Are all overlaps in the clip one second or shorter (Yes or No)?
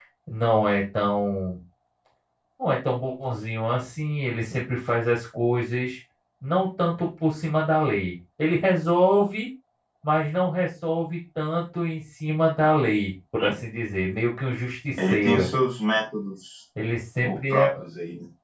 Yes